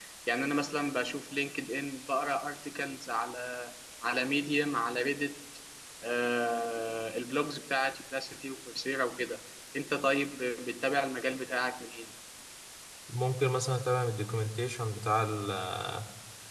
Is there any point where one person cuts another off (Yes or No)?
No